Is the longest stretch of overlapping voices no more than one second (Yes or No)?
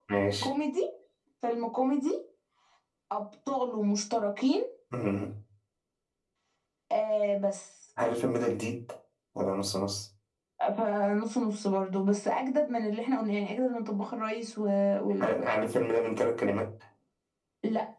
Yes